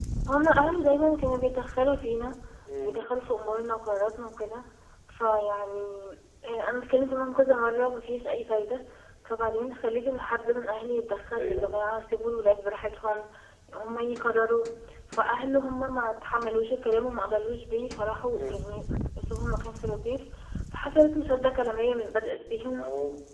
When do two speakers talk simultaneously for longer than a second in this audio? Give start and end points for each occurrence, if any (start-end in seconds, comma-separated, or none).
none